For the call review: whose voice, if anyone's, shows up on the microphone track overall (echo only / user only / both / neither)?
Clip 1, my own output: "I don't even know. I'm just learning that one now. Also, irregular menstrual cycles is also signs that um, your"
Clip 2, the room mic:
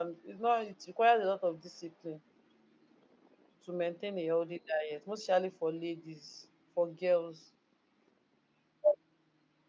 user only